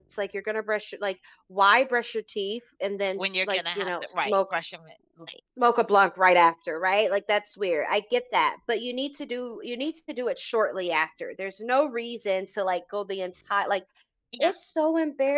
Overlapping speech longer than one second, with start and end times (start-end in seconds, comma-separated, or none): 3.2-4.5